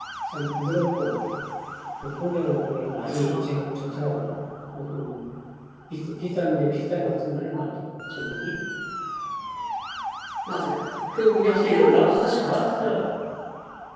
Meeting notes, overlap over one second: present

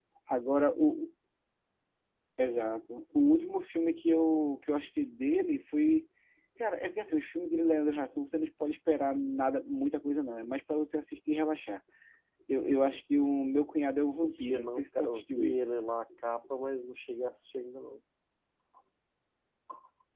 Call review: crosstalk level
present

